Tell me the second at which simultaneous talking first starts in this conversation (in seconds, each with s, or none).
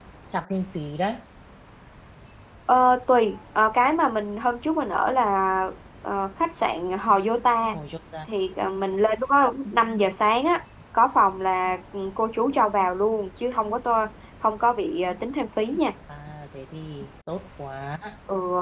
none